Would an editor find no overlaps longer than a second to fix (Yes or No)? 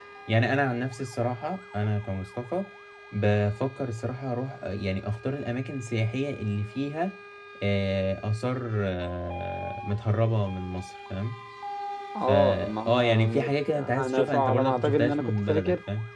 No